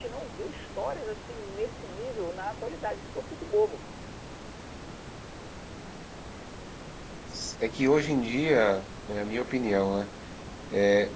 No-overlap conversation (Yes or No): Yes